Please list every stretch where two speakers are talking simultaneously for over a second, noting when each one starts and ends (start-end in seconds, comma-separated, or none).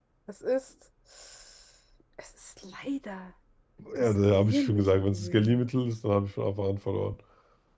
4.1-5.6